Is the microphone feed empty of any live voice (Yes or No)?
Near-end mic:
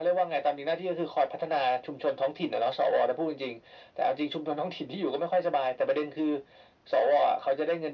Yes